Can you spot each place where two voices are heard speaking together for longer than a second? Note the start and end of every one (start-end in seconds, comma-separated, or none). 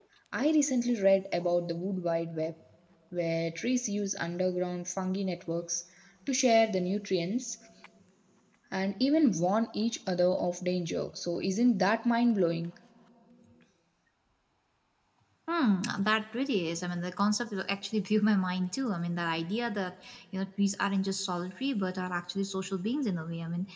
none